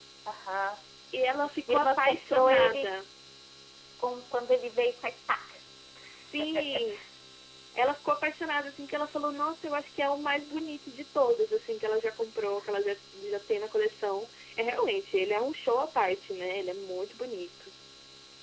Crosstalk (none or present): present